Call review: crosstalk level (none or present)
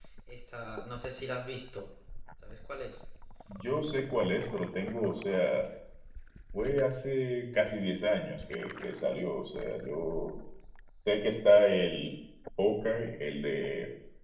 none